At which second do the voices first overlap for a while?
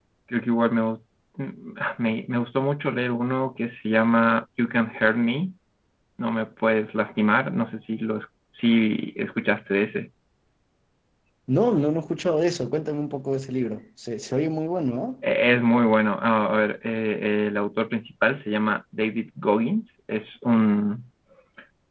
none

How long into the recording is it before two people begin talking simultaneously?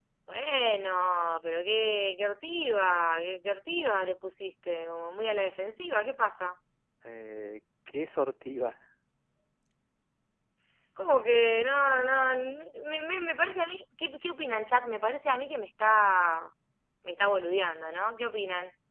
none

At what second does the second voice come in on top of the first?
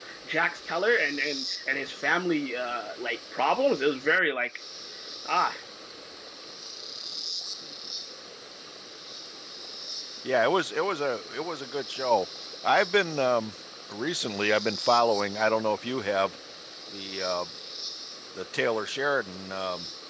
none

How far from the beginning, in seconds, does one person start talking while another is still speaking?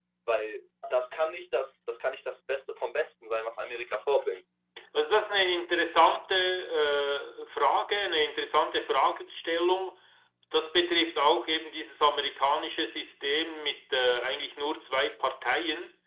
none

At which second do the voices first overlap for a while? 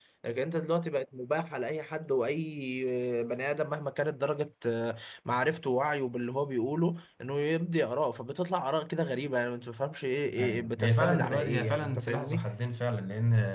10 s

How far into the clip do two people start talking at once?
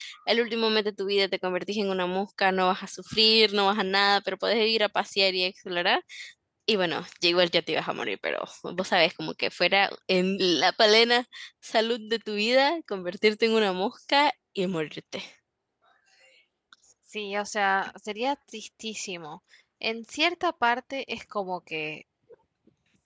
none

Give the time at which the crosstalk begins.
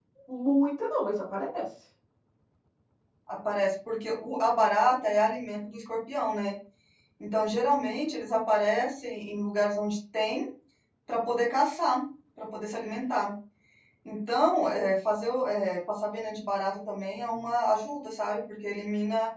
none

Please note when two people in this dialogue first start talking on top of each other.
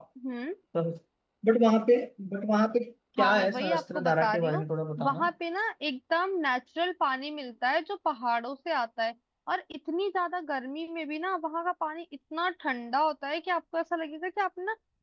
3 s

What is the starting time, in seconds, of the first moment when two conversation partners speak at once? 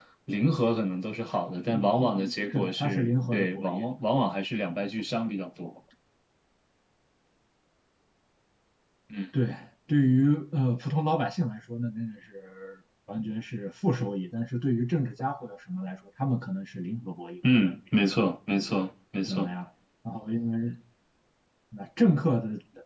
2 s

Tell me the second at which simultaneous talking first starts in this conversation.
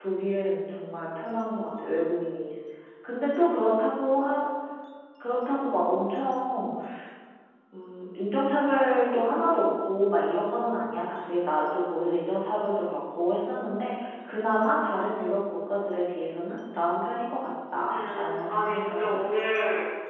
18 s

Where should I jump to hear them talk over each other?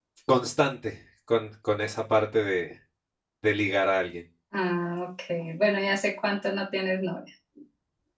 none

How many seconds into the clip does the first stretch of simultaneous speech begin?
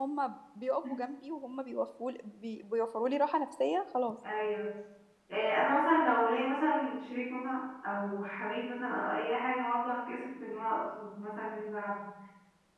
none

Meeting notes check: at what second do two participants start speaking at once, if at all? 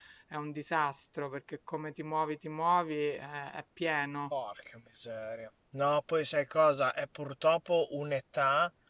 none

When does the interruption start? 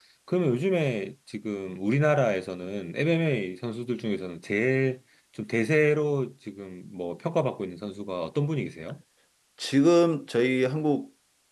none

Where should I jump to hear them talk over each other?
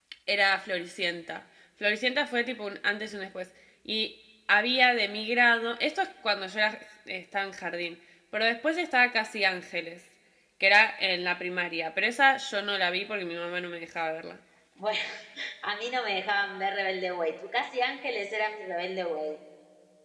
none

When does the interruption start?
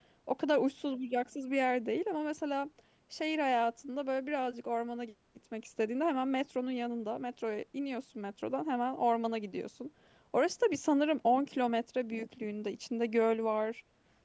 none

